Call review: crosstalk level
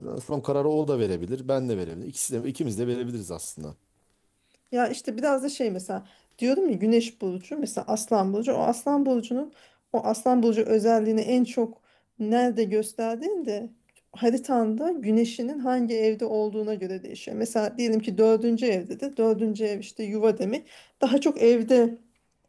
none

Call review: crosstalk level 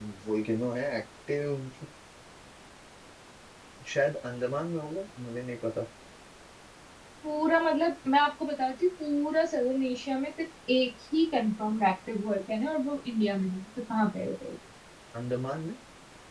none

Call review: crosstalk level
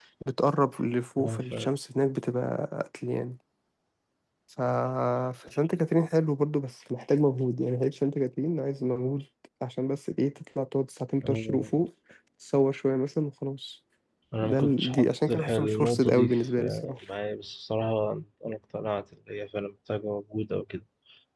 present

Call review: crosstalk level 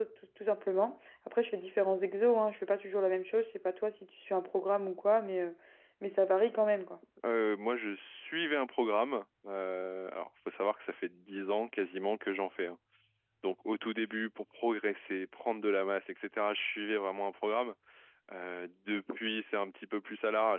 none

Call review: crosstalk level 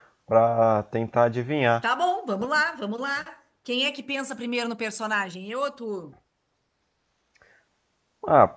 none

